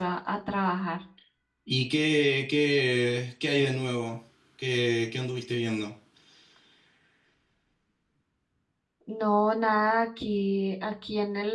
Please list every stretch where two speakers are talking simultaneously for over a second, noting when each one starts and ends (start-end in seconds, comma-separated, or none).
none